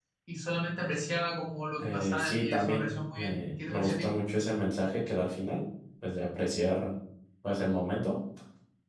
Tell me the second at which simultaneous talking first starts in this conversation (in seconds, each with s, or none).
1.8 s